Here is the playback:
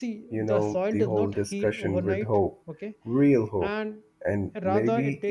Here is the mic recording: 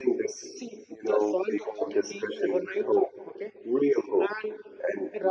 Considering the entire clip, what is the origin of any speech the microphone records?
echo only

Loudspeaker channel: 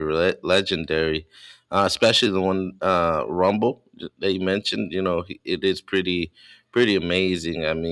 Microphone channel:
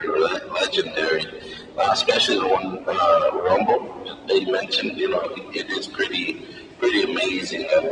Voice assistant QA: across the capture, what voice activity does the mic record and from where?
echo only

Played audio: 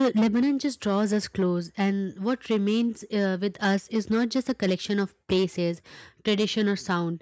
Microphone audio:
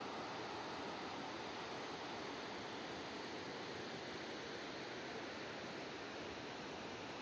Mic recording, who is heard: neither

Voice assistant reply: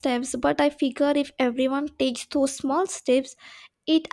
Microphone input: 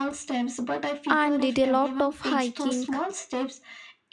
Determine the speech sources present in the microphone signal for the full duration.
both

